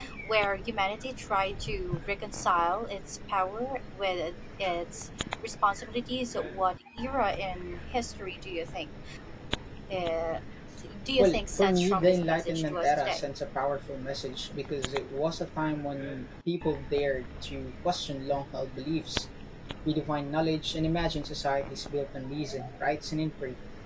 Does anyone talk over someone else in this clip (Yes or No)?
Yes